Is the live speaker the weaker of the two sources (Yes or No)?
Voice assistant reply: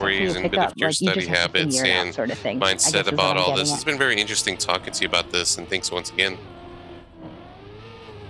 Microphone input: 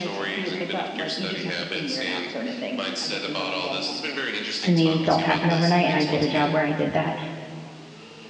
No